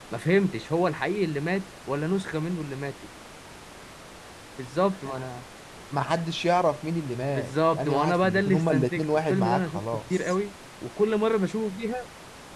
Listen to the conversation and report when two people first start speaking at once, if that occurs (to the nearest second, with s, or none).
7 s